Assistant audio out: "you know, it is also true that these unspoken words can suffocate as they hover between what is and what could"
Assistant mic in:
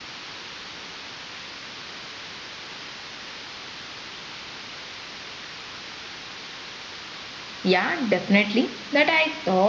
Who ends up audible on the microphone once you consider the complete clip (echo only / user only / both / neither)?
user only